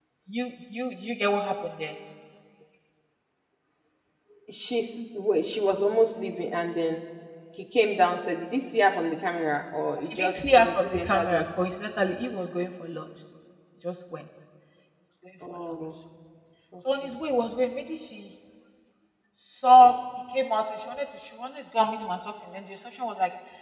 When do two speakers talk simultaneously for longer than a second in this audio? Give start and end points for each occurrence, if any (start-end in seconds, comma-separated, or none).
10.1-11.4